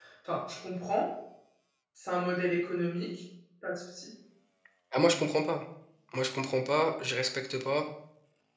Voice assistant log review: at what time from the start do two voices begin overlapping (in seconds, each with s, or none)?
none